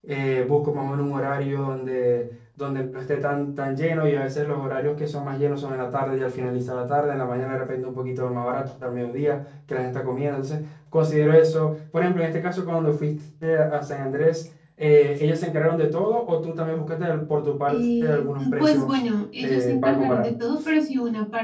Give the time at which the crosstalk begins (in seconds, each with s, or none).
17.7 s